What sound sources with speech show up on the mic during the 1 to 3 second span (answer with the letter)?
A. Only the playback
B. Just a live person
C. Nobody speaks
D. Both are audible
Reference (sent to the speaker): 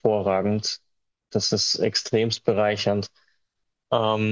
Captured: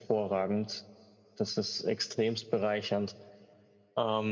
A